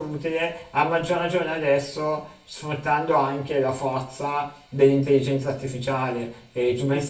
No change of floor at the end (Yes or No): No